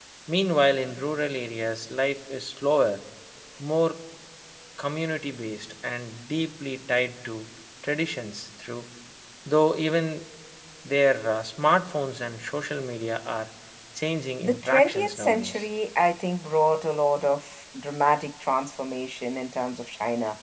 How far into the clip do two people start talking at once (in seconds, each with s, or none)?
14.4 s